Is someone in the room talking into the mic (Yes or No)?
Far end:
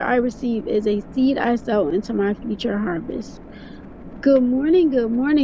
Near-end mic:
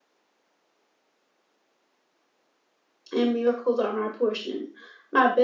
Yes